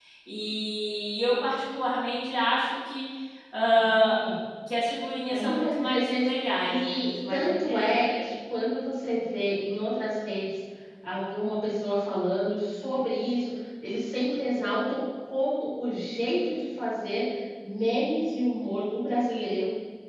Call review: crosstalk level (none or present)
present